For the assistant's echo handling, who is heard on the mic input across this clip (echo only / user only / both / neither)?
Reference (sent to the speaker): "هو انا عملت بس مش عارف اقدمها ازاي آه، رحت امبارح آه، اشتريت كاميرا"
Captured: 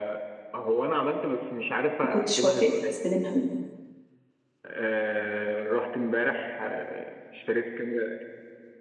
both